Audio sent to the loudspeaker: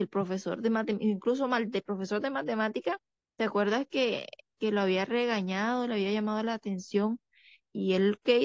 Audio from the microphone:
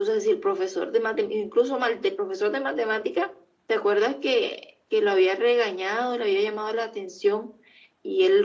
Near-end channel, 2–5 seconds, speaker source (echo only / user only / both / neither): echo only